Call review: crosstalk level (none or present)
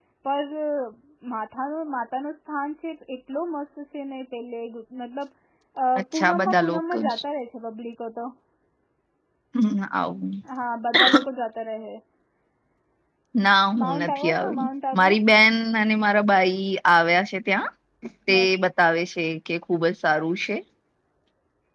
present